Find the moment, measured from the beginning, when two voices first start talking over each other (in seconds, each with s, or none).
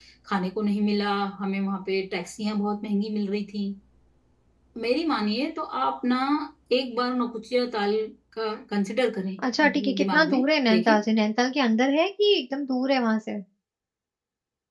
9.4 s